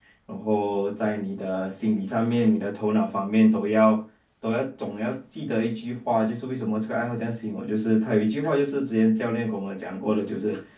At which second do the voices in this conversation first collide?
none

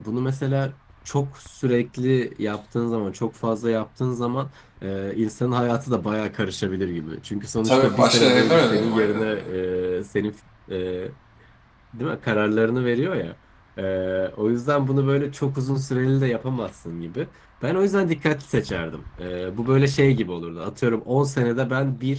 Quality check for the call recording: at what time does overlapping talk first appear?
8 s

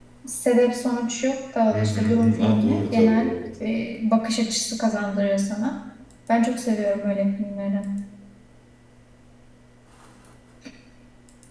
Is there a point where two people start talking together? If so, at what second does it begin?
2 s

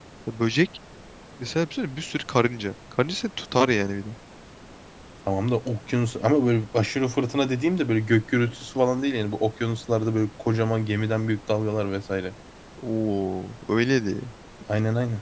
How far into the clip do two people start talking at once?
none

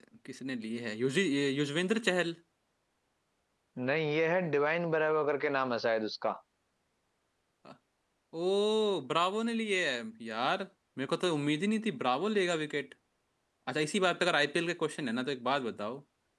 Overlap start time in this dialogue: none

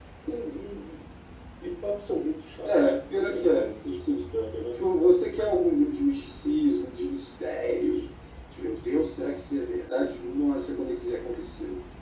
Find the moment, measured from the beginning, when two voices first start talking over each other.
3 s

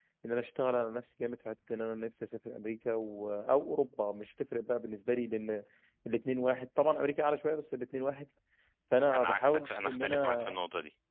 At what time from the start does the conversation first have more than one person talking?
9 s

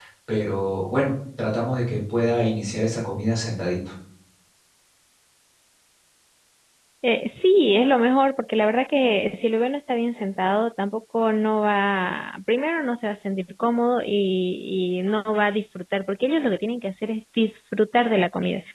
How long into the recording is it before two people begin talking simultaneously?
none

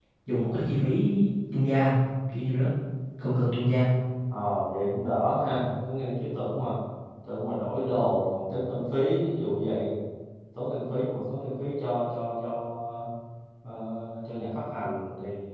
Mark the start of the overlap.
none

